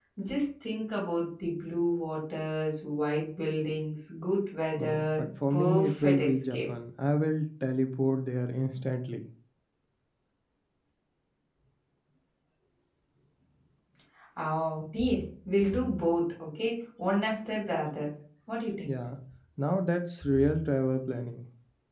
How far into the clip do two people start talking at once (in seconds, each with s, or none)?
4.8 s